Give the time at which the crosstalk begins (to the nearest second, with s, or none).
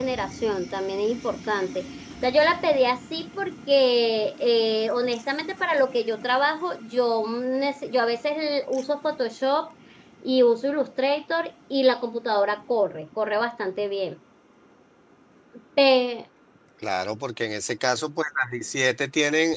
none